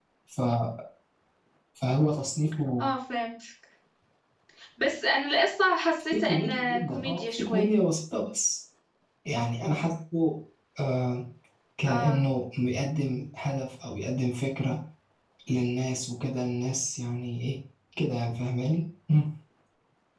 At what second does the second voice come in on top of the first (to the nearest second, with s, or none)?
6 s